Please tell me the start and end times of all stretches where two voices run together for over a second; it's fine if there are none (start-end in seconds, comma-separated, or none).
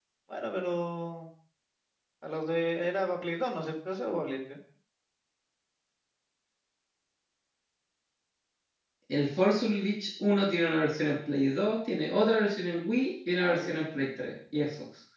none